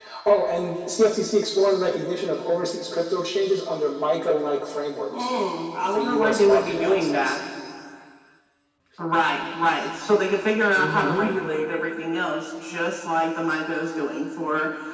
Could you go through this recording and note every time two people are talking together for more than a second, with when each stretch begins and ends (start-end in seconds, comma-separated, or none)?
5.9-7.4